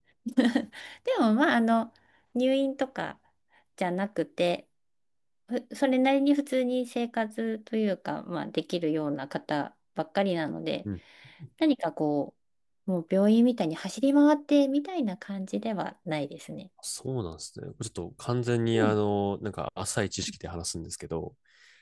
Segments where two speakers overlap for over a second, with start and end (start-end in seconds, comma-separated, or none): none